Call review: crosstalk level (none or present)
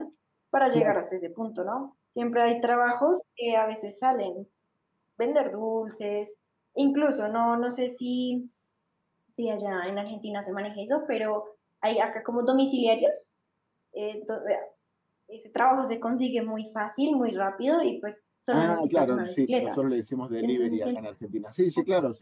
present